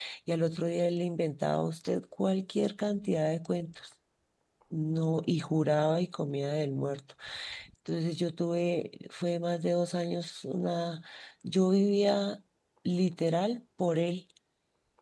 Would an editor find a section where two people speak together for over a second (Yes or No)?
No